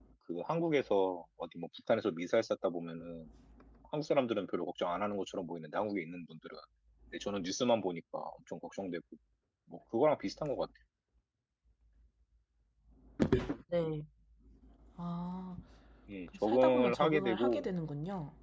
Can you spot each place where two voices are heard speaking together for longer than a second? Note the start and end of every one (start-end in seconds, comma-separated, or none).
16.2-17.7